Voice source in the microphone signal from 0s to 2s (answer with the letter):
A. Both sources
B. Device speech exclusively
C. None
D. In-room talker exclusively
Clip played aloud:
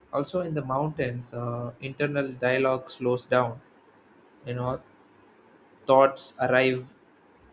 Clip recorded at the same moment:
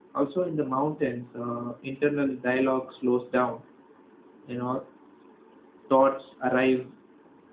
B